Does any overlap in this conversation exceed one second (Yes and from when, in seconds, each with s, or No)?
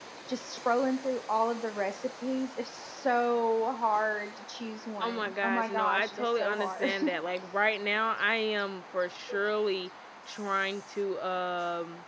Yes, from 5.0 s